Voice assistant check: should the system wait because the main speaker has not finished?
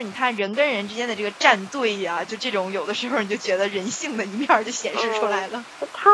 No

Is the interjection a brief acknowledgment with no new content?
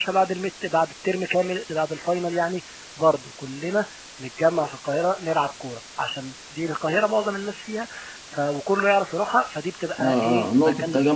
No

